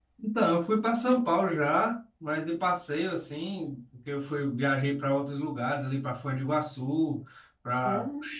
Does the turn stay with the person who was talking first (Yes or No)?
Yes